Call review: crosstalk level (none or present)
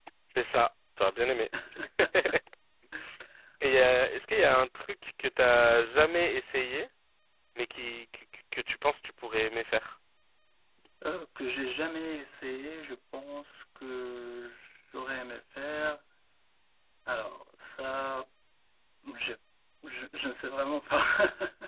none